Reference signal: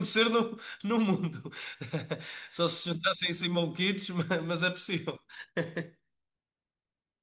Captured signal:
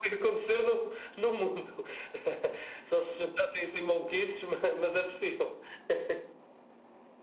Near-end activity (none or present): none